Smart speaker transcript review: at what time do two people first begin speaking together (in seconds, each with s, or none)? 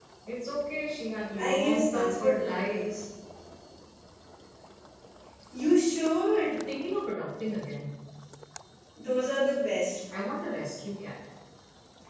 1.4 s